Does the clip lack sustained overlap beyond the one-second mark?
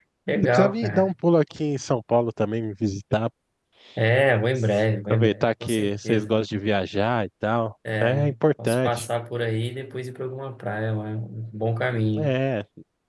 No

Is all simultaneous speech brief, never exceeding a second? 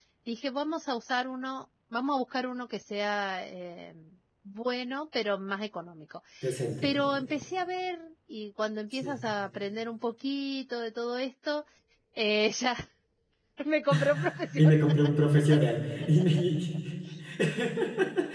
Yes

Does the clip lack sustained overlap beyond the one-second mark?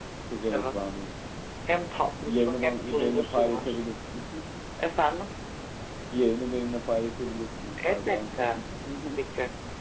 No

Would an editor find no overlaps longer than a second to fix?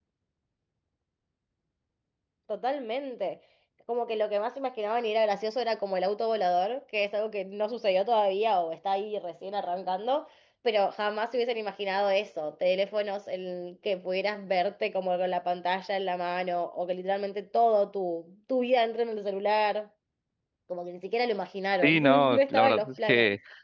No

